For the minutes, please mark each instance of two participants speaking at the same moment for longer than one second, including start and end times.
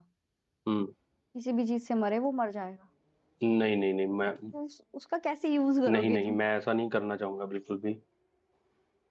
none

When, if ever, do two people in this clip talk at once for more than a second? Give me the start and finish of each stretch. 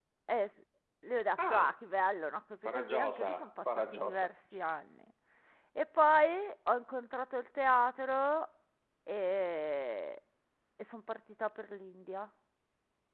2.6-4.3

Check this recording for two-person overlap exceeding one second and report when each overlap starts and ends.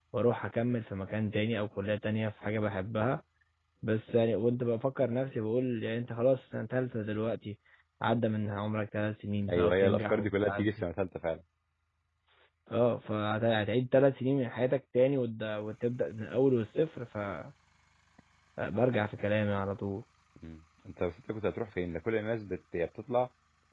9.5-10.7

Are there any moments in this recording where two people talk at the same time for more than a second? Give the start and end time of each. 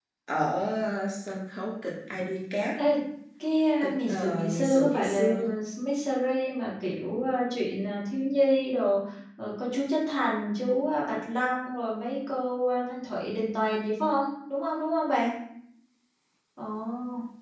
3.8-5.5

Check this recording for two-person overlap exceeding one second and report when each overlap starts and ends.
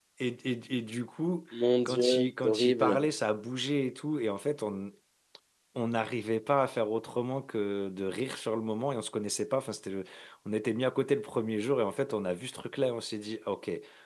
1.8-3.1

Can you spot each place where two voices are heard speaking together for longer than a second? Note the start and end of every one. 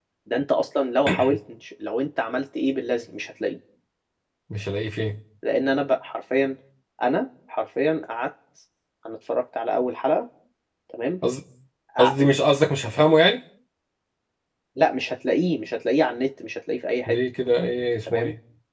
none

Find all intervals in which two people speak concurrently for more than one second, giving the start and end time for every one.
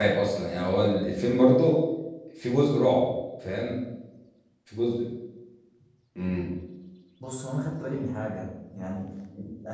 none

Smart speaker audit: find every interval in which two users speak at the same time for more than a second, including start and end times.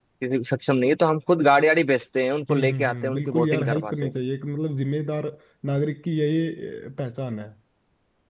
2.5-4.1

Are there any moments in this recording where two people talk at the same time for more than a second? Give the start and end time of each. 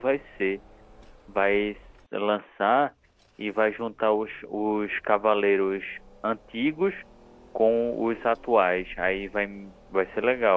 none

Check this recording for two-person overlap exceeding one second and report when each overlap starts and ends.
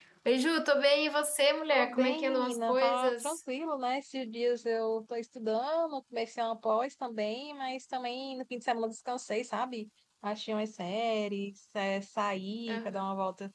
1.7-3.4

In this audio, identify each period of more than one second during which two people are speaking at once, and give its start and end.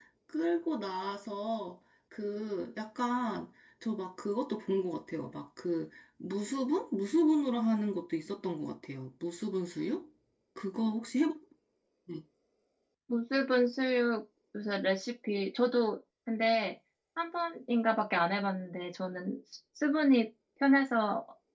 none

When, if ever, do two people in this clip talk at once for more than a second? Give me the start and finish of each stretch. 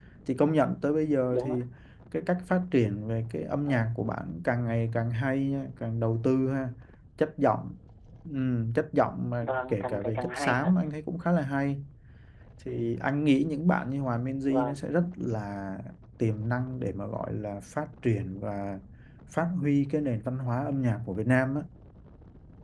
9.4-10.8

